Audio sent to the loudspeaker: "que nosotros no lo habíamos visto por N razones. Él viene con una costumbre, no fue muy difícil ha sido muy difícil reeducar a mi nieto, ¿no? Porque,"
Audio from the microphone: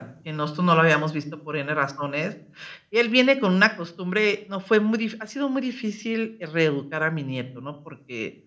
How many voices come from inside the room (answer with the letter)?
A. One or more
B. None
B